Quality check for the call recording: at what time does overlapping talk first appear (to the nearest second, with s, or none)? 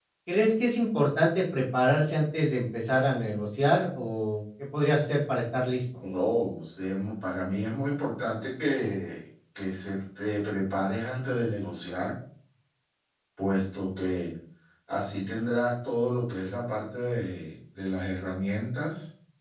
none